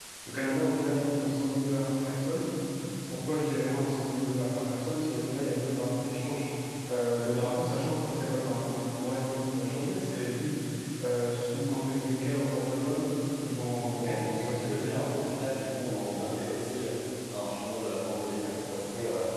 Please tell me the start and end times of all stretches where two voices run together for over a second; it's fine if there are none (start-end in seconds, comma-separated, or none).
13.8-15.0